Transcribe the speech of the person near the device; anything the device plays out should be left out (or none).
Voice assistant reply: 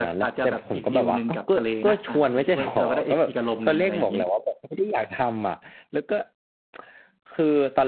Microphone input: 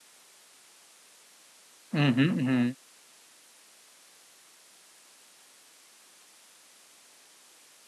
อืมฮึอืมฮึ